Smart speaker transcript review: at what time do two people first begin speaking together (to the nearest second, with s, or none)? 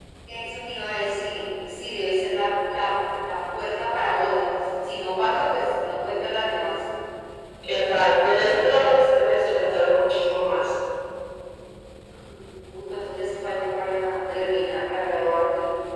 none